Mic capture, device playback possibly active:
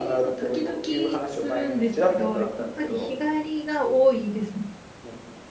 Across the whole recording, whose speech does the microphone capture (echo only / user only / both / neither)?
both